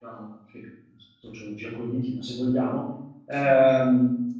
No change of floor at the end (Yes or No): Yes